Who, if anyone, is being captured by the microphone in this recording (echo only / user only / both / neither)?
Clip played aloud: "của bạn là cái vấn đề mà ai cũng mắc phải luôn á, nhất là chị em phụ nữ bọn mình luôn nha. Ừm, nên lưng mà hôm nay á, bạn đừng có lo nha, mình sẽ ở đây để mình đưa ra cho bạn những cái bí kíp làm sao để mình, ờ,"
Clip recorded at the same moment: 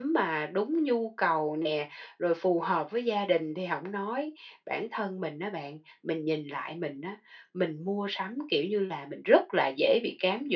user only